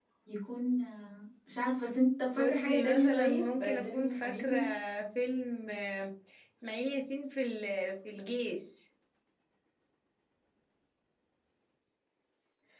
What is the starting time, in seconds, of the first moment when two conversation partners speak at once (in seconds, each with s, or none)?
2.4 s